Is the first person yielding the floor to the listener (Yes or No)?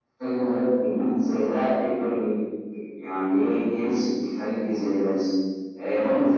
No